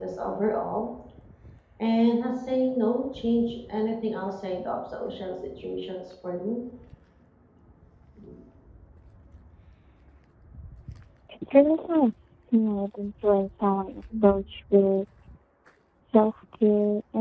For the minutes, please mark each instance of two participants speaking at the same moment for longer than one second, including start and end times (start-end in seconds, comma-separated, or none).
none